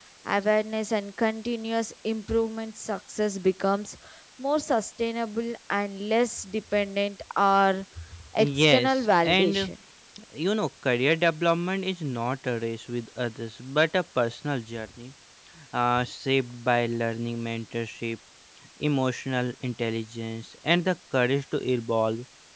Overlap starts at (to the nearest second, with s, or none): 8 s